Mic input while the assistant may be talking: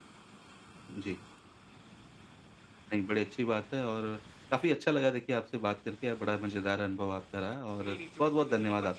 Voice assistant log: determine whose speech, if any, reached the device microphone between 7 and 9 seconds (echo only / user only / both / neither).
both